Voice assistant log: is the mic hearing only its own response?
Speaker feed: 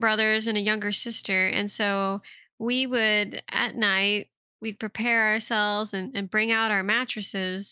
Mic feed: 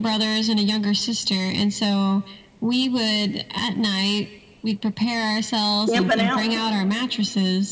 No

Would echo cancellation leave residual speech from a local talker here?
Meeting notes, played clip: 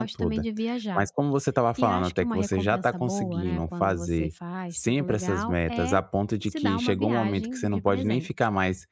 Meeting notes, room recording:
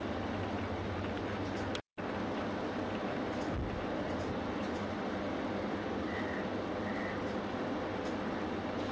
No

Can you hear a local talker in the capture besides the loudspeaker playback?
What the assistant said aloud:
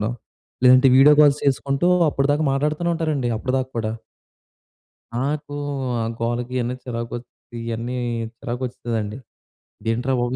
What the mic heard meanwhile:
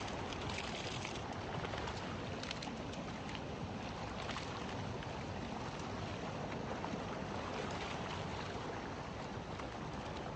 No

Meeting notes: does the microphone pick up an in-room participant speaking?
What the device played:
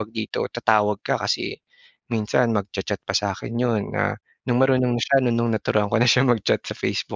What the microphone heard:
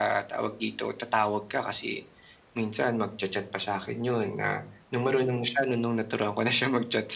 No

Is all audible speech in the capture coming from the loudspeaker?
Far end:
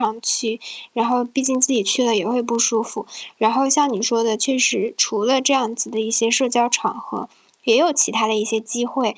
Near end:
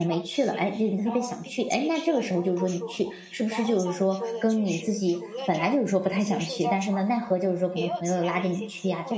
No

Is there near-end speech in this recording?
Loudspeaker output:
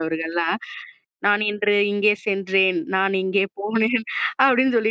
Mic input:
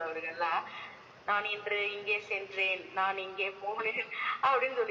No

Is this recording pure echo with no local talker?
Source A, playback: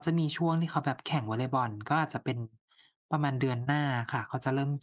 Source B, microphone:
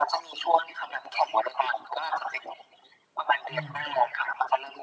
No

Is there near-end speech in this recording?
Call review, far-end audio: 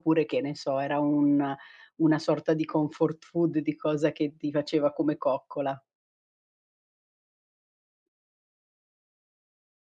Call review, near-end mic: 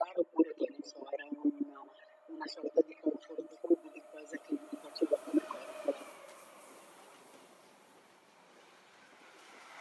No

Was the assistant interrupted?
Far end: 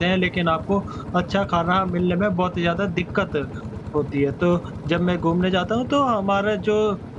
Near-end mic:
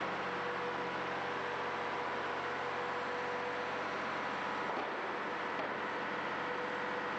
No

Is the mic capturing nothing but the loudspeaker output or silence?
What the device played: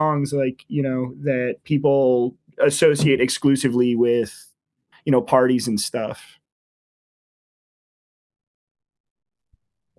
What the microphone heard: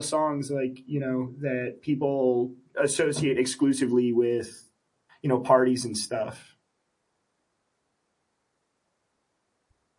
Yes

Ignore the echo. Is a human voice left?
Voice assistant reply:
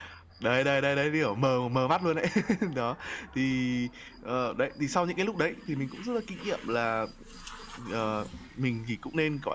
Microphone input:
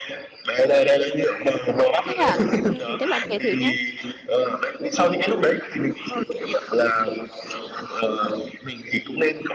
Yes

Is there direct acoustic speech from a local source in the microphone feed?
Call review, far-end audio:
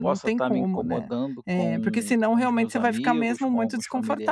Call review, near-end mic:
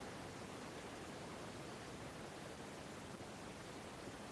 No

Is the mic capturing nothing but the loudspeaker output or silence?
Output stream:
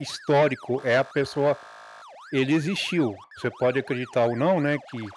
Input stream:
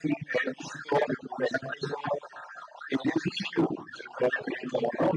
Yes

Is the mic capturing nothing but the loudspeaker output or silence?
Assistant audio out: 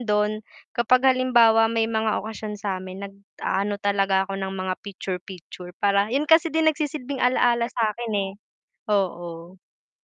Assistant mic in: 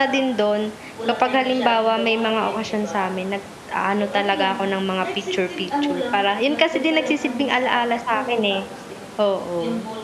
No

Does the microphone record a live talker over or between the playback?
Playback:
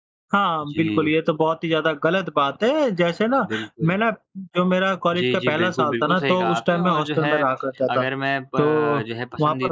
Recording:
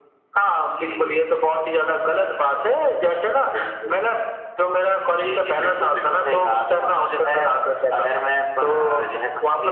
No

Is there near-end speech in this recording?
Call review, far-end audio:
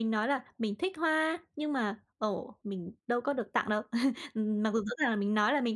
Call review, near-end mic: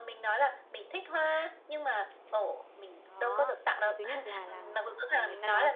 Yes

